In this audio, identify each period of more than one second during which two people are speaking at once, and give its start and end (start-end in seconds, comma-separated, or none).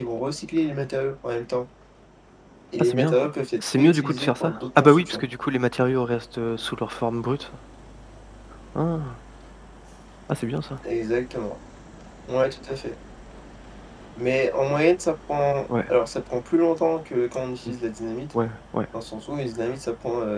3.6-5.2